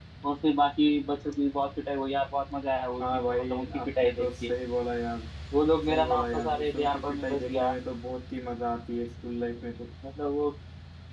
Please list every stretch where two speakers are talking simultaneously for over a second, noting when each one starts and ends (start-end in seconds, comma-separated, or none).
3.0-4.5, 5.9-7.7